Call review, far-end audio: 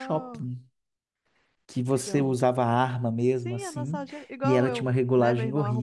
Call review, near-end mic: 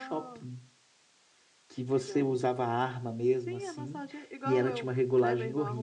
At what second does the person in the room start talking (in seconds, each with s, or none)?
none